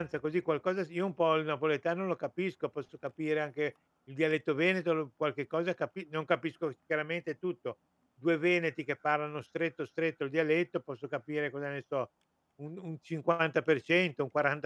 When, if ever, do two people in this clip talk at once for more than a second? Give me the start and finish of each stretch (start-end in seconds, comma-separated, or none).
none